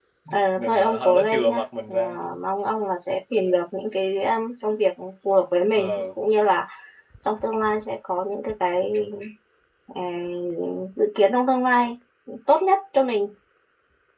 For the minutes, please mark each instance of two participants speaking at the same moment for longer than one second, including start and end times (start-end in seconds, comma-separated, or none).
0.6-1.9